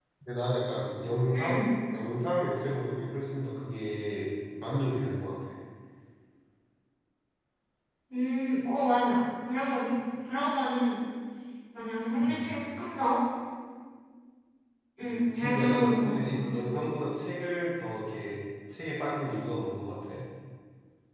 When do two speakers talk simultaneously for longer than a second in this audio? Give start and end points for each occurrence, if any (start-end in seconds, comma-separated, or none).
15.0-16.4